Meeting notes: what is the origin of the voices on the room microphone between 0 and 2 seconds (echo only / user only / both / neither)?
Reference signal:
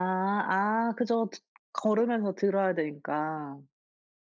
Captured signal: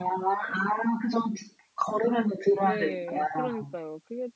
echo only